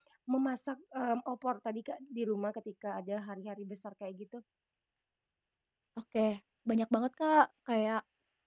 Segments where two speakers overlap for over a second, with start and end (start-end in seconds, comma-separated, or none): none